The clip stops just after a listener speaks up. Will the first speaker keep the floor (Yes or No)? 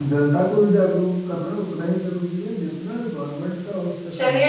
No